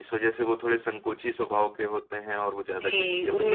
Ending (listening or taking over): taking over